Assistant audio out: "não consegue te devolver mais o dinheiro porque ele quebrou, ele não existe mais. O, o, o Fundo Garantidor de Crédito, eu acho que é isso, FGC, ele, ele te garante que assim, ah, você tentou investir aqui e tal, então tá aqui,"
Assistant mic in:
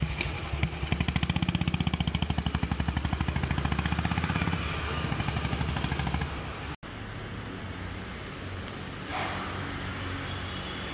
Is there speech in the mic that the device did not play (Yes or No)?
No